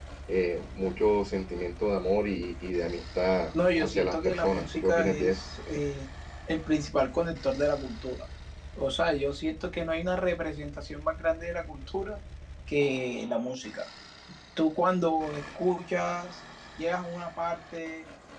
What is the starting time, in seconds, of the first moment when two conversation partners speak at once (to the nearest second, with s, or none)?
4 s